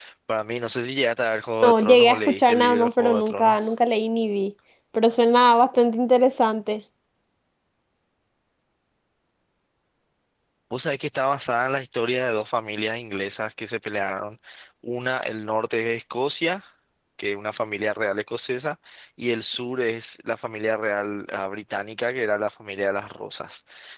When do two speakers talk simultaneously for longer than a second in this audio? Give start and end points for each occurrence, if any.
1.6-3.7

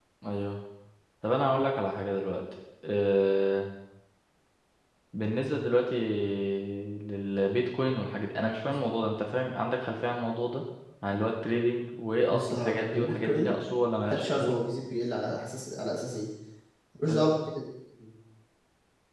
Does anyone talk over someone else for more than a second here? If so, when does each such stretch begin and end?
12.3-13.5

